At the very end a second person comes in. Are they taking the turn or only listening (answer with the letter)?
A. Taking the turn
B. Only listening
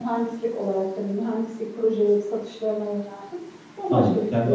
A